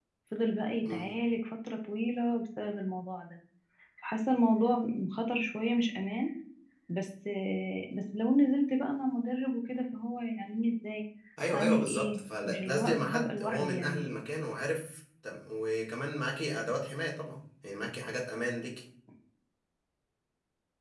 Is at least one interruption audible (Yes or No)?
Yes